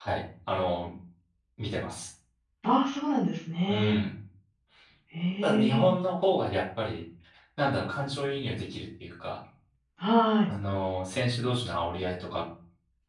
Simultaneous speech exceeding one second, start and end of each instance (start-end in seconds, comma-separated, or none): none